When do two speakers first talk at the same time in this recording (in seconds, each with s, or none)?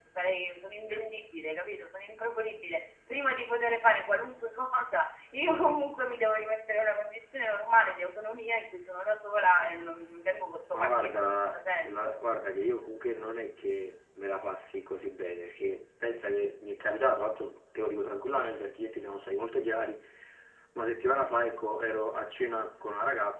10.7 s